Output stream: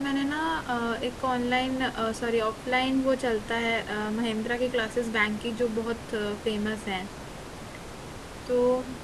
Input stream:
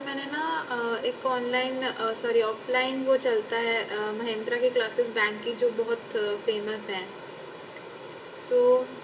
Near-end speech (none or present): none